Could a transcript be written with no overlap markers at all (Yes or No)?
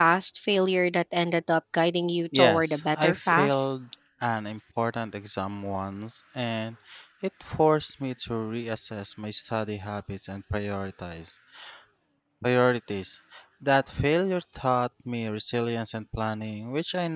No